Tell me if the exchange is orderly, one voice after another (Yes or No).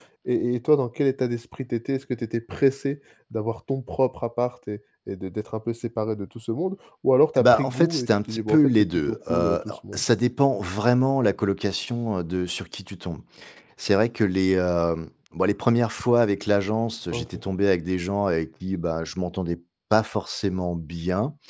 No